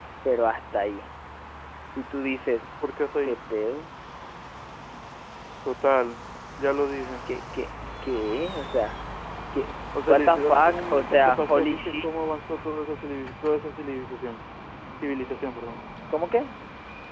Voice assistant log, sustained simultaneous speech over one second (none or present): present